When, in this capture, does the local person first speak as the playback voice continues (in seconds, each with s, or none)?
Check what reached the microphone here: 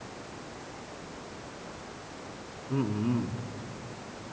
2.7 s